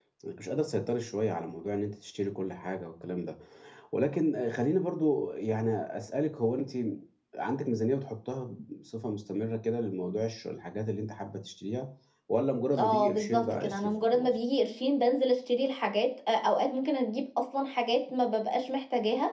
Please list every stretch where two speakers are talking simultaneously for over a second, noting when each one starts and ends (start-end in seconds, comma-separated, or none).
12.8-14.3